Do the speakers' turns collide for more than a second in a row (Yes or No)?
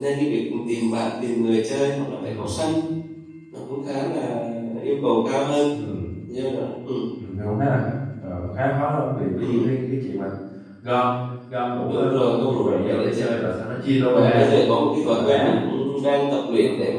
Yes